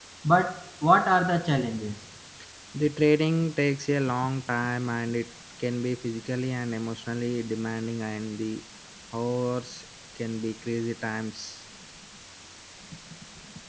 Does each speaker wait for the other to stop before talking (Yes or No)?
Yes